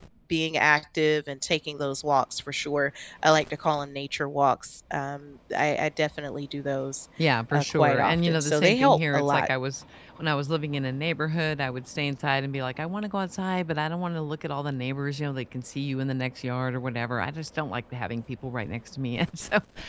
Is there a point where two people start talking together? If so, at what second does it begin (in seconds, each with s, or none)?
7.5 s